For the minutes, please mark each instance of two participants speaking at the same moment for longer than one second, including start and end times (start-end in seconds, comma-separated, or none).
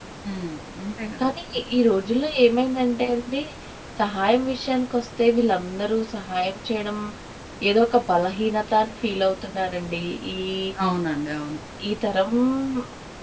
none